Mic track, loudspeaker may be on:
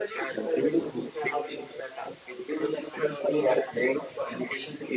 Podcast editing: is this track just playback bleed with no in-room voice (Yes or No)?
Yes